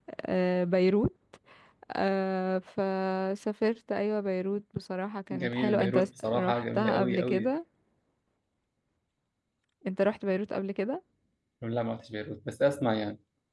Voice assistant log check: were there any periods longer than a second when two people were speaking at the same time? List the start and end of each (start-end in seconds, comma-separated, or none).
5.3-7.5